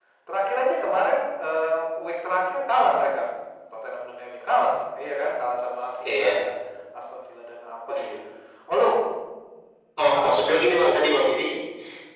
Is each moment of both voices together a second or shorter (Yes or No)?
Yes